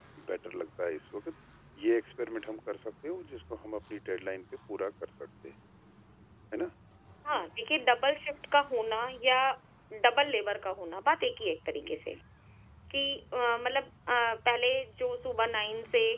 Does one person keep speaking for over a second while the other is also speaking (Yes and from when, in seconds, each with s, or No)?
No